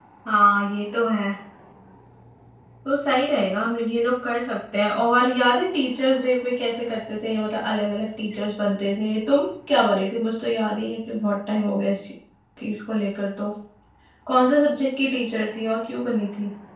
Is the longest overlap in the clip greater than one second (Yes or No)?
No